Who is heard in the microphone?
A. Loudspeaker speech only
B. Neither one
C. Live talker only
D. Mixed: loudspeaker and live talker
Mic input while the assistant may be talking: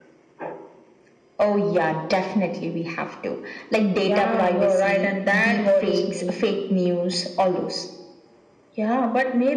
A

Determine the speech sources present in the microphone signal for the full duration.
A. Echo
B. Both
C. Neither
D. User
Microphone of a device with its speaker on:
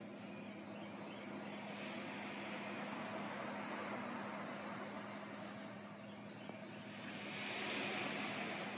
C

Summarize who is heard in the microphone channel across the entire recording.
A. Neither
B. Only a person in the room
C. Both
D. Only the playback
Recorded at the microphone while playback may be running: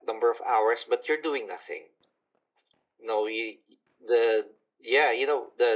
D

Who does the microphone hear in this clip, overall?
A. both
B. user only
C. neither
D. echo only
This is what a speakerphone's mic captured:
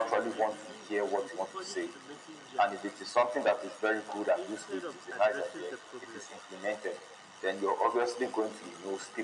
A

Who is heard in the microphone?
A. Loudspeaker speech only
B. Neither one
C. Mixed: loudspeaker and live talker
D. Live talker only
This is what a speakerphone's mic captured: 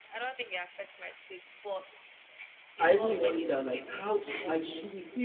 C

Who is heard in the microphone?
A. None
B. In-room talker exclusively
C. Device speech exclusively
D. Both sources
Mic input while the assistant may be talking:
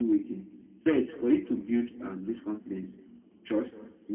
C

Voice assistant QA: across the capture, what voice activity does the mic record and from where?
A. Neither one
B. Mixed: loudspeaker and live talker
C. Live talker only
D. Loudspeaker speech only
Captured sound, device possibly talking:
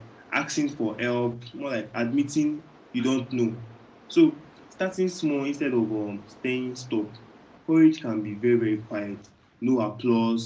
D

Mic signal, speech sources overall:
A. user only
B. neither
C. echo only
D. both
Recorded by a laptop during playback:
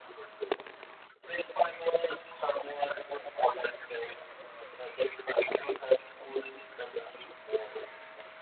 C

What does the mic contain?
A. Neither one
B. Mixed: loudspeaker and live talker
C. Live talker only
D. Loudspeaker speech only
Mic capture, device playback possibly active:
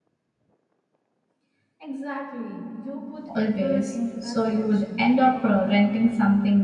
B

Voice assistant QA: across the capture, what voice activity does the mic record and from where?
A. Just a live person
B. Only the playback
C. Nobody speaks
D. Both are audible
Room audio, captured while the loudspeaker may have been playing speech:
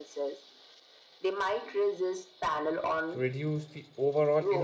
D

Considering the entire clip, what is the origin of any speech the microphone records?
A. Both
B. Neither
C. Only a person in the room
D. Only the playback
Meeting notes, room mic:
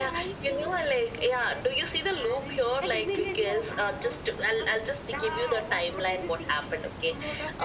D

